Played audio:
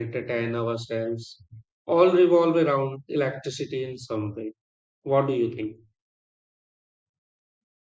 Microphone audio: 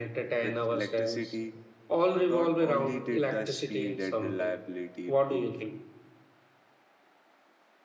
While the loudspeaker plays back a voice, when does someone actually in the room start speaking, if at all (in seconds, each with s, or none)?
0.4 s